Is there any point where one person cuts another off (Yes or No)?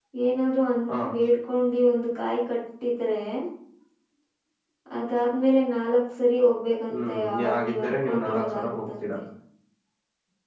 Yes